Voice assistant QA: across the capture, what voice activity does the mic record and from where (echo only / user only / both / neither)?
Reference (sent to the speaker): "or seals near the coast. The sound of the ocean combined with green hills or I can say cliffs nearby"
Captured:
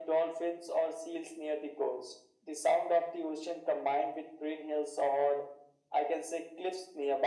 echo only